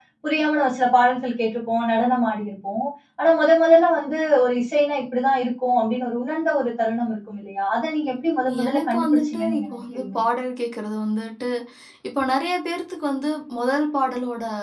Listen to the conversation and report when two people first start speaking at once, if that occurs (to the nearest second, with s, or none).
8 s